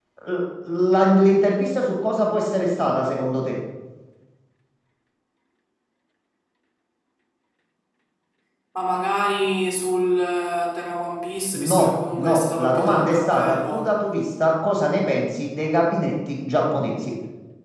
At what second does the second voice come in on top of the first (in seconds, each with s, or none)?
11.5 s